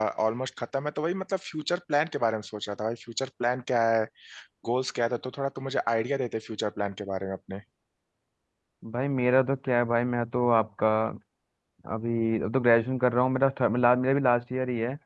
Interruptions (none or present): none